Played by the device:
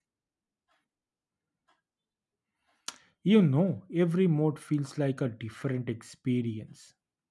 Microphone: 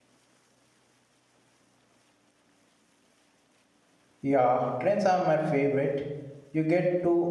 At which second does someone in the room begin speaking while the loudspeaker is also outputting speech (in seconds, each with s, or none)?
4.2 s